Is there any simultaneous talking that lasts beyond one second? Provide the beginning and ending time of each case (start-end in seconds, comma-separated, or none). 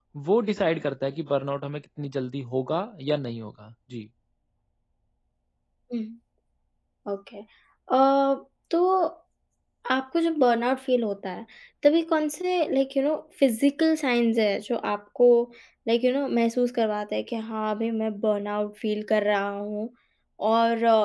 none